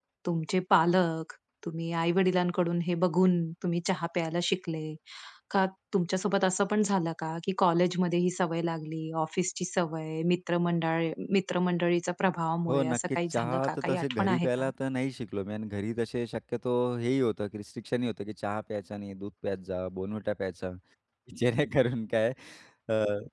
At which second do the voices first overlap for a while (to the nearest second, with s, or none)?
13 s